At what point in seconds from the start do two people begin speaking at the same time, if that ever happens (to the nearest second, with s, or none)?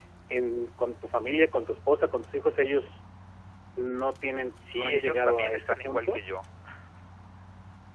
5 s